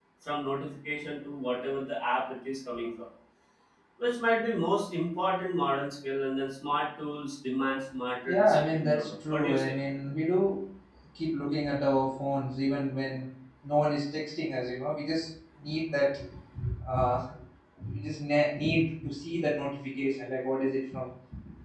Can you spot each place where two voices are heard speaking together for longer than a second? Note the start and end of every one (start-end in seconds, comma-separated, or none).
8.3-9.7